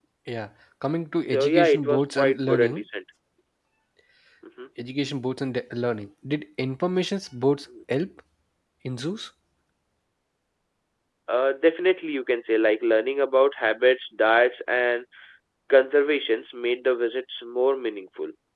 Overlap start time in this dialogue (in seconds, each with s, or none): 1.3 s